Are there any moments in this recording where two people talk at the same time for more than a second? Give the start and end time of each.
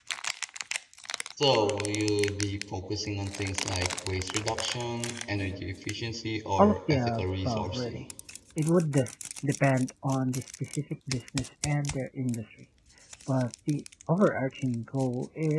6.6-8.0

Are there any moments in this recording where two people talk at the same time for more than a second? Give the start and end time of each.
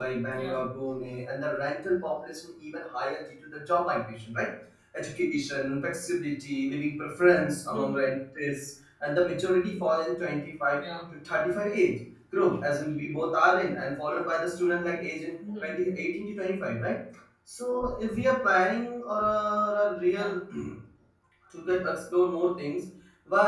none

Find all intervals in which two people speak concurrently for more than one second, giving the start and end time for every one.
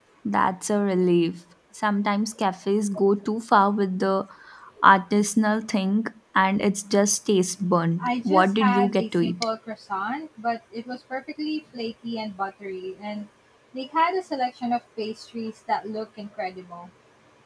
8.0-9.4

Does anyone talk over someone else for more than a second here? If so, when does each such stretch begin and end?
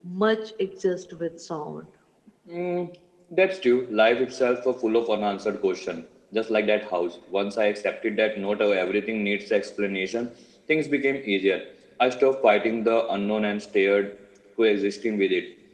none

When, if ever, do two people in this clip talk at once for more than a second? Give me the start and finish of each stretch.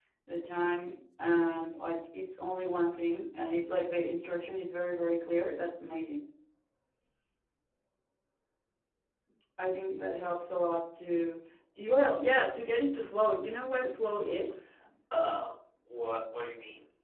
none

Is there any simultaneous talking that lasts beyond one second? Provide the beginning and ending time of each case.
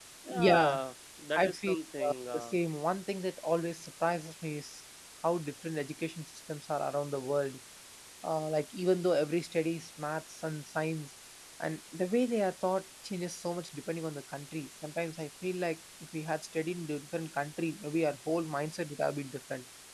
1.4-2.6

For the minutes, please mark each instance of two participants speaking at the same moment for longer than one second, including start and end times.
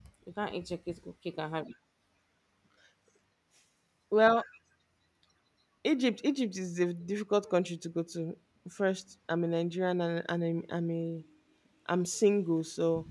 none

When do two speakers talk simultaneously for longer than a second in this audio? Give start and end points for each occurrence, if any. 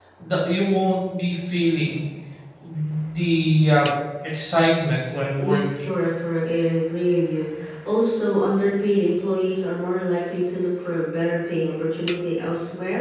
none

